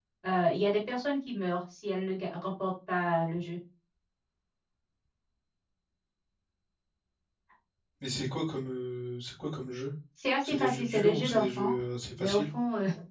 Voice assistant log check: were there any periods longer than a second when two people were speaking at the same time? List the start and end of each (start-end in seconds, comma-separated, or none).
10.4-11.7